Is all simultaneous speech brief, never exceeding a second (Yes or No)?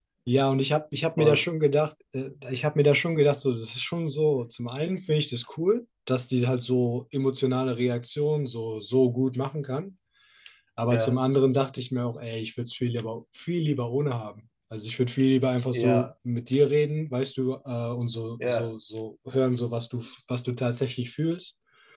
Yes